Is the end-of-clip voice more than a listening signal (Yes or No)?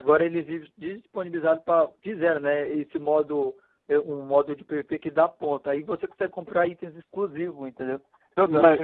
Yes